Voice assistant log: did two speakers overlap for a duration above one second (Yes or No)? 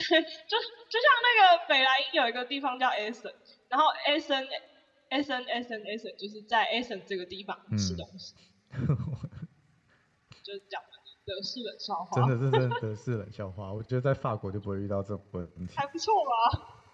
No